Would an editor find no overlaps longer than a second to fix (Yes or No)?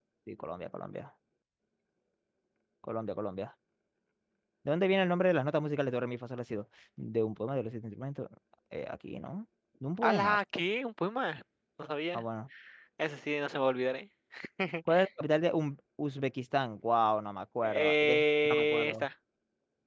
No